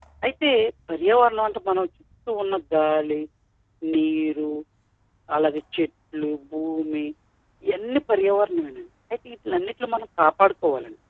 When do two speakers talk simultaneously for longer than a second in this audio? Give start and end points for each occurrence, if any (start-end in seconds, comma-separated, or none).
none